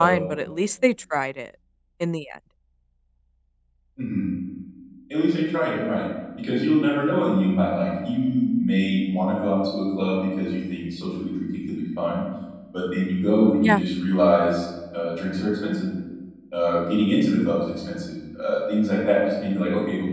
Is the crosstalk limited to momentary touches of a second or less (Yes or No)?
Yes